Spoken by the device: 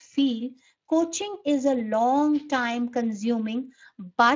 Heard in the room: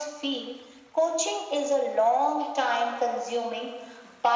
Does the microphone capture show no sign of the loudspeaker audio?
No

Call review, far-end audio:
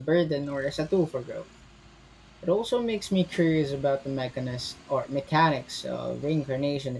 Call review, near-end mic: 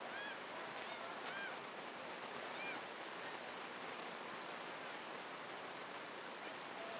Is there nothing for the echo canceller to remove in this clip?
Yes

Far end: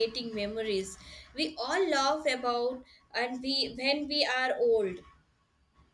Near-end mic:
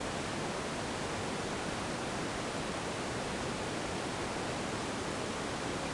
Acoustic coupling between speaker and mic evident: No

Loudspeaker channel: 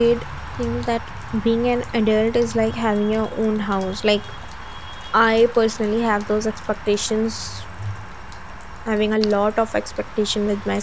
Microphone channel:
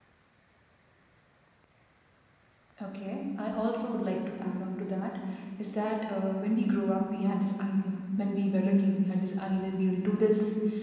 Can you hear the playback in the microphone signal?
No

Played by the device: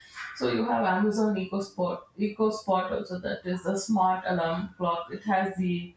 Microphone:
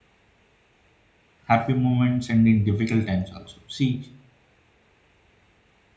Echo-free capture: Yes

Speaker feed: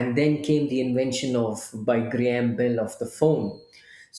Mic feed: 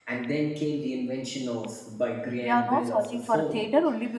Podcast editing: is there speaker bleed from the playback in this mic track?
Yes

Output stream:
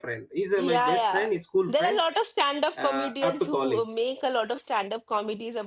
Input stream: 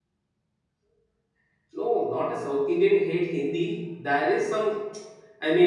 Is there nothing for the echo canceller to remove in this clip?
Yes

